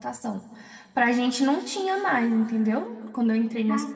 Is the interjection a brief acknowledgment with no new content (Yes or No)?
Yes